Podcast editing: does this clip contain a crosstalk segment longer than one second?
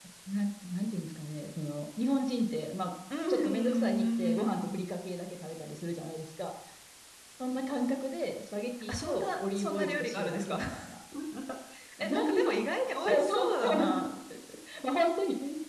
Yes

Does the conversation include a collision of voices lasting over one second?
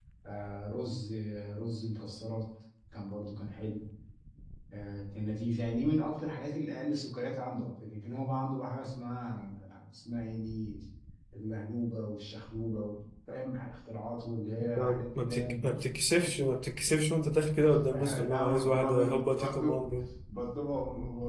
Yes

